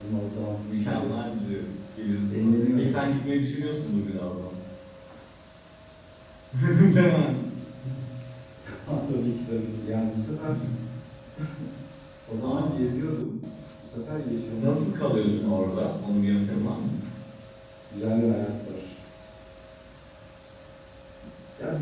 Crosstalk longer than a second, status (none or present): present